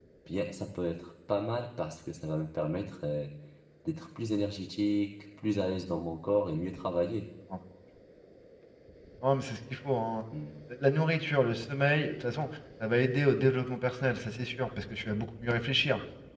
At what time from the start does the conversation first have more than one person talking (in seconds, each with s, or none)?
none